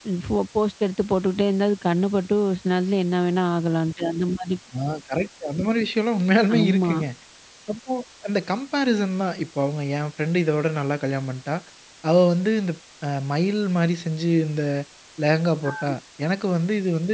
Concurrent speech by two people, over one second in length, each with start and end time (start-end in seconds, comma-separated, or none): none